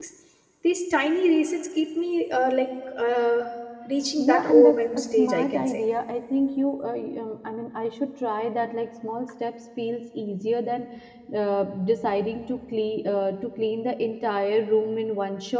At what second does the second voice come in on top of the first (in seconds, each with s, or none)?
4.2 s